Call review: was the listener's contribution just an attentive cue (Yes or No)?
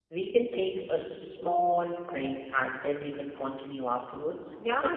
No